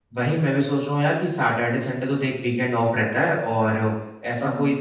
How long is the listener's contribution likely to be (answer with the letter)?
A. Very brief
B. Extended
A